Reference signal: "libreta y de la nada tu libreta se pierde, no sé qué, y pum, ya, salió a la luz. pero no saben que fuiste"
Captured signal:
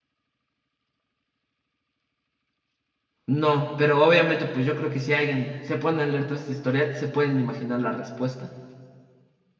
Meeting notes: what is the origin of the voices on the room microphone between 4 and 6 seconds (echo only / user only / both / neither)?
user only